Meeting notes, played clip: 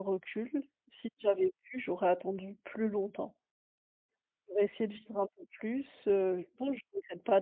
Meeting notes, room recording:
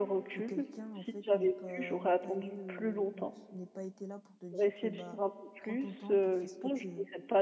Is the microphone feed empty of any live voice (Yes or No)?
No